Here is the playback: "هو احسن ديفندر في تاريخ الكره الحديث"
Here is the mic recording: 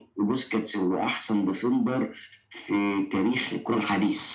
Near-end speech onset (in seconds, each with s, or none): none